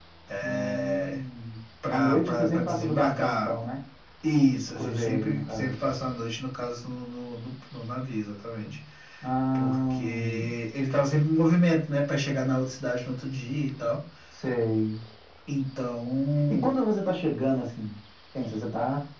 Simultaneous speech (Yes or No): Yes